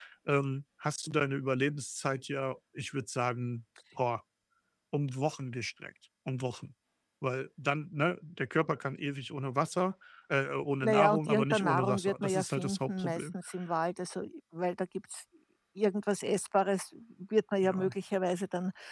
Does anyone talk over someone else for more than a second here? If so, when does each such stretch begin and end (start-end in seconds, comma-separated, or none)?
10.8-13.3